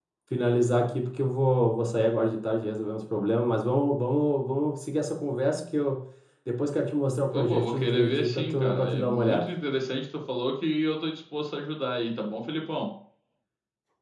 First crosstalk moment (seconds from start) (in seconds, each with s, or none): 7.3 s